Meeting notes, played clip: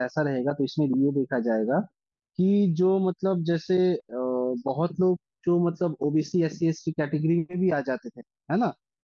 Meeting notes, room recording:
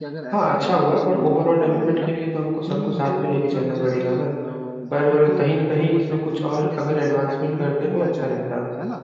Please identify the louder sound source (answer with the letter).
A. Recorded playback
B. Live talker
B